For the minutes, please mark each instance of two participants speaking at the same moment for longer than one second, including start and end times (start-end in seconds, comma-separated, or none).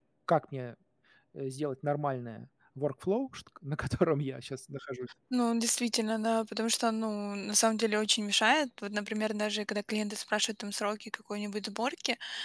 none